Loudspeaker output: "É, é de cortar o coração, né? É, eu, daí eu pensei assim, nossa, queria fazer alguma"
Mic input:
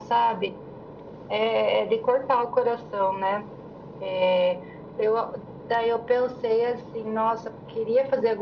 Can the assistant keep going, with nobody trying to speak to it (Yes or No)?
Yes